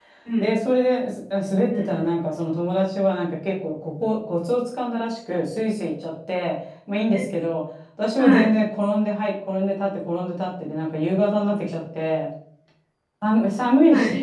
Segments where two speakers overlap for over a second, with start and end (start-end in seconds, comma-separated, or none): none